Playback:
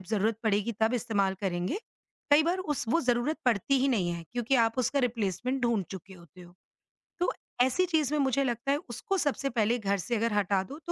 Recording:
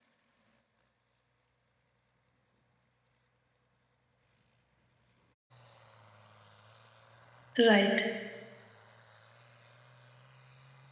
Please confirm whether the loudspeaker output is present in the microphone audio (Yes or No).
No